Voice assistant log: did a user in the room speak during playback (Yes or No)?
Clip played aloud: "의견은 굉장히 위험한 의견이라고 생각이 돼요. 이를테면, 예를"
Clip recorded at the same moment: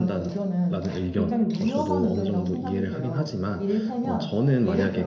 Yes